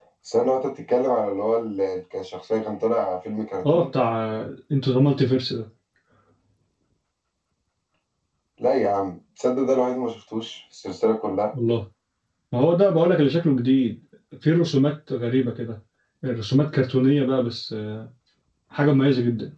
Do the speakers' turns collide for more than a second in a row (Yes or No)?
No